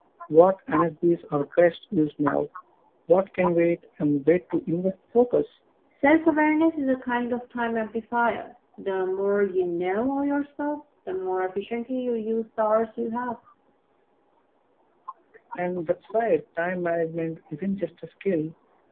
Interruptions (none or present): none